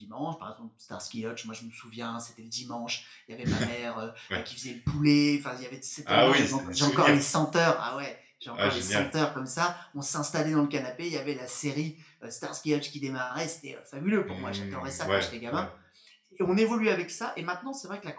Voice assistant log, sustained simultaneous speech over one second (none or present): present